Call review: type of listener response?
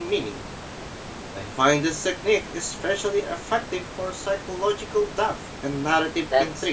taking over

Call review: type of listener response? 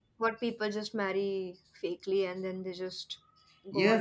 taking over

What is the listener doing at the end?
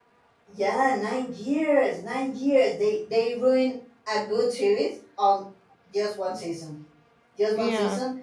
listening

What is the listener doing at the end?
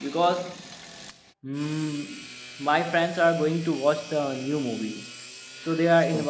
listening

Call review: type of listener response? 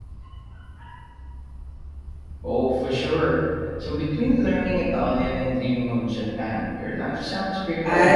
taking over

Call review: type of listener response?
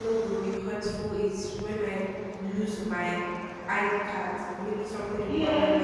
taking over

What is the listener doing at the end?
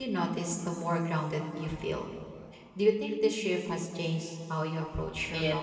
taking over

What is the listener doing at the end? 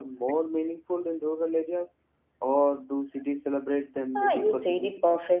taking over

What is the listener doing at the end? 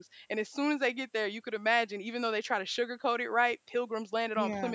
listening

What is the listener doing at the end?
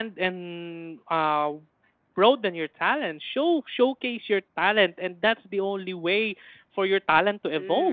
taking over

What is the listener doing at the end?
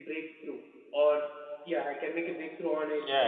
taking over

